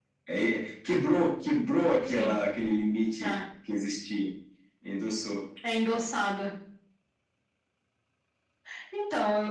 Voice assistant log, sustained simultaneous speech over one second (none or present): none